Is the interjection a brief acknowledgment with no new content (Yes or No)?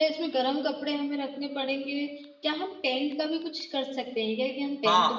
No